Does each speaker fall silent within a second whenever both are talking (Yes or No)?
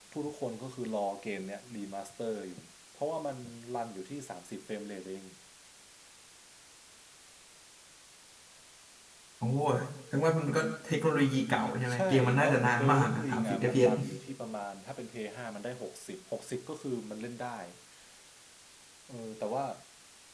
No